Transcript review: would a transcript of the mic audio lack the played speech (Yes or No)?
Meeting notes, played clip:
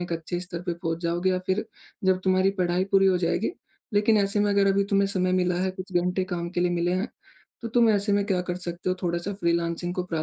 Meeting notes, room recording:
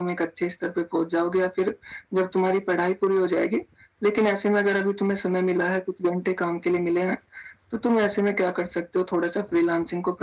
No